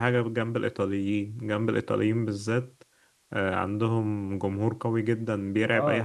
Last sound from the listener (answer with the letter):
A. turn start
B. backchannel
A